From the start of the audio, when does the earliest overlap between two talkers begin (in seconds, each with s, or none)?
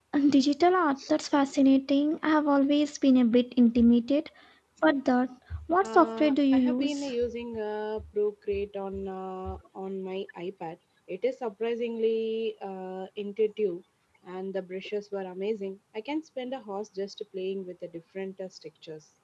5.8 s